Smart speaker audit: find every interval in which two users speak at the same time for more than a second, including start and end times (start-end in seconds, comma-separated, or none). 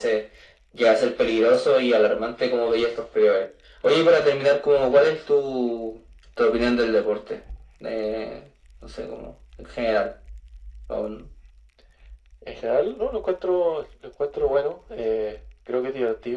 none